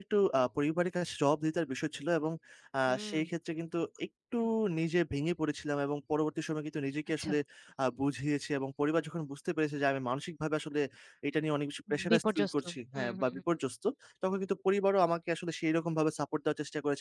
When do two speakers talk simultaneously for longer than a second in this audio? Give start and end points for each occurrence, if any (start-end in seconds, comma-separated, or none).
12.1-13.4